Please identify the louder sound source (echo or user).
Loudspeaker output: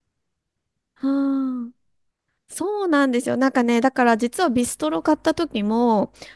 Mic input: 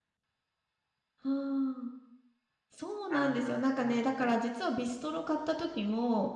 echo